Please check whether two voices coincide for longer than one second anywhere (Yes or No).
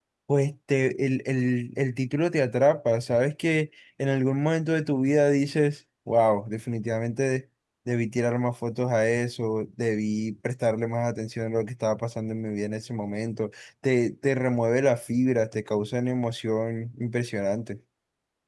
No